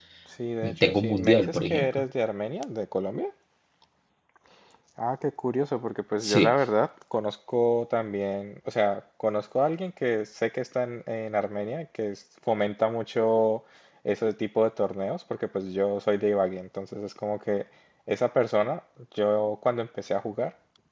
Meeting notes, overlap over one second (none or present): present